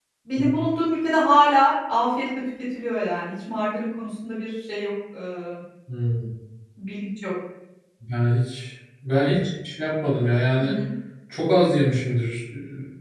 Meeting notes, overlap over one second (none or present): none